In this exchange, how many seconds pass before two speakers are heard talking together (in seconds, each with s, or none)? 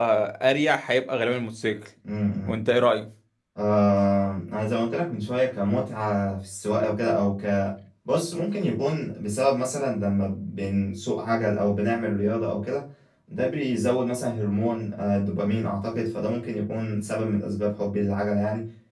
none